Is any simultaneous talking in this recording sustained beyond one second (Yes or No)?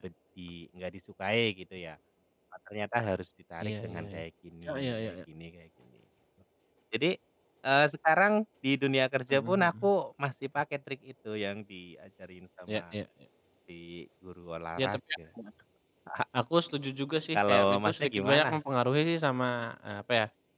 Yes